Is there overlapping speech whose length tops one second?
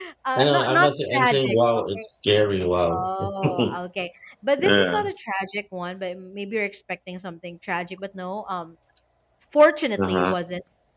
Yes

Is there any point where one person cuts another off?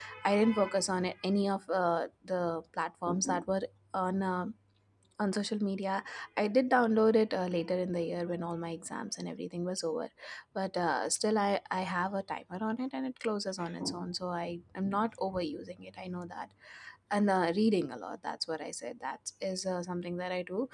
No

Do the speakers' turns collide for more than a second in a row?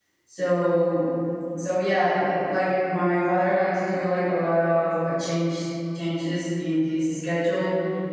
No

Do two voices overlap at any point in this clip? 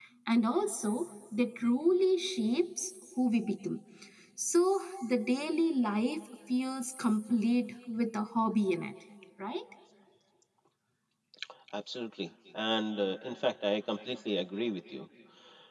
No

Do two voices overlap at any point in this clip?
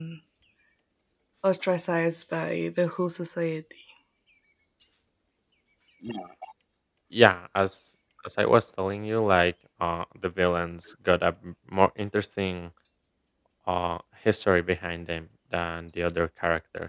No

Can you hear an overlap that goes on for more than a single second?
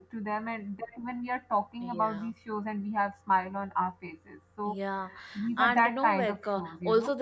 Yes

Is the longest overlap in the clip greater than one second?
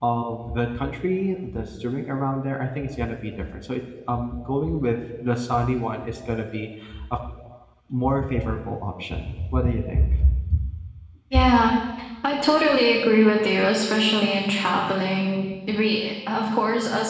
No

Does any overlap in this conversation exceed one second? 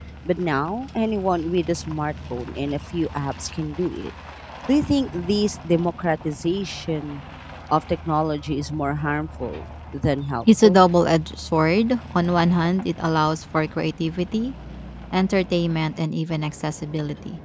No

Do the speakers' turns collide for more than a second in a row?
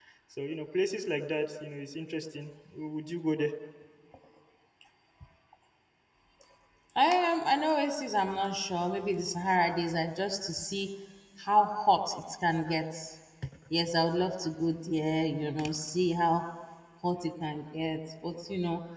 No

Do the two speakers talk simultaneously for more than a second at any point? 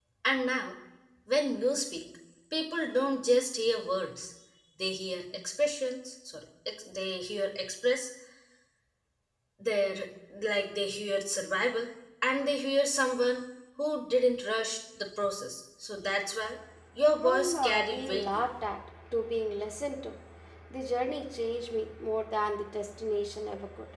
Yes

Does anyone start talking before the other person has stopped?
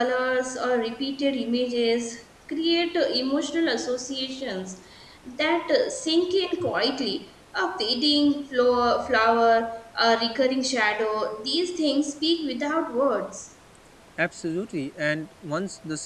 No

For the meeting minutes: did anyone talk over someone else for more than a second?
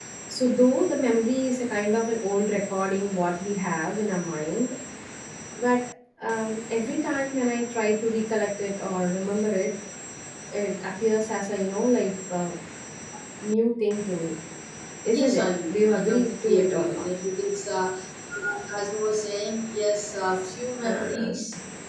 Yes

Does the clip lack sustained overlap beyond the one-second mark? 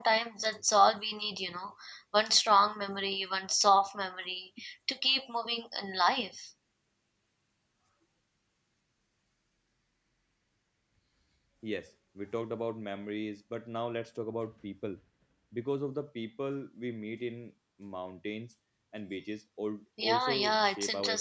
No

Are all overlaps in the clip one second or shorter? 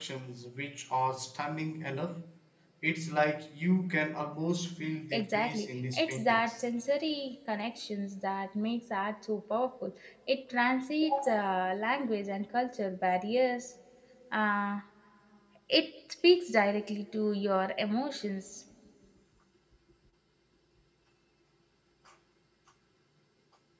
No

